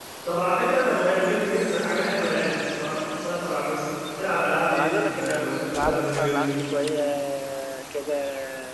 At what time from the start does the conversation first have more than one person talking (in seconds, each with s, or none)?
4.7 s